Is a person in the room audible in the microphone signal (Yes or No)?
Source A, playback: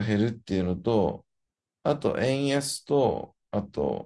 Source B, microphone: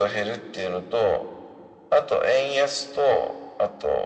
No